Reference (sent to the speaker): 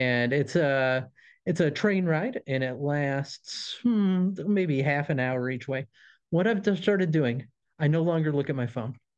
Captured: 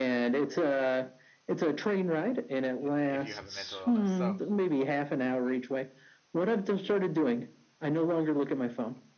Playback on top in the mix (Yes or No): Yes